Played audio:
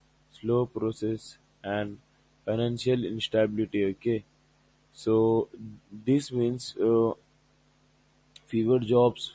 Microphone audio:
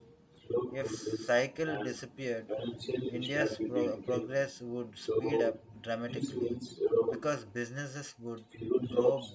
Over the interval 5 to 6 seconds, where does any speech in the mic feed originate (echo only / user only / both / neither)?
both